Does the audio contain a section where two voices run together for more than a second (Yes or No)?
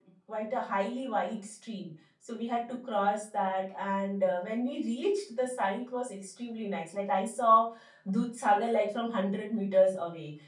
No